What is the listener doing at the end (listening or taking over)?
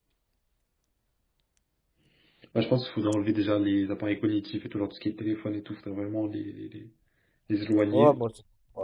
taking over